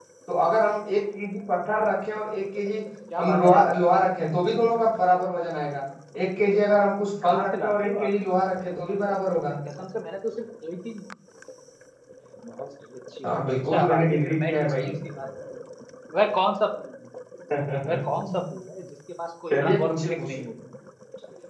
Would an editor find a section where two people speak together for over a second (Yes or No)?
Yes